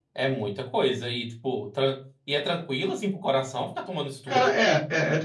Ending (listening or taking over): taking over